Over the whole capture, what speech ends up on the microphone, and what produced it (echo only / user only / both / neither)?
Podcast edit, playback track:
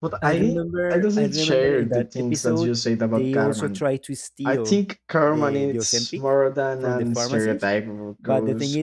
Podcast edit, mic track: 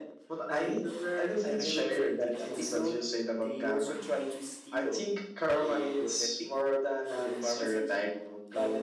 both